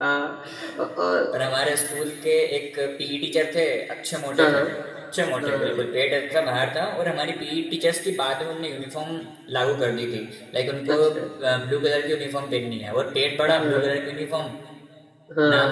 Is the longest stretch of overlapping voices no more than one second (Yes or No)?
Yes